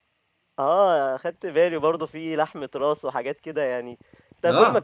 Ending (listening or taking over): listening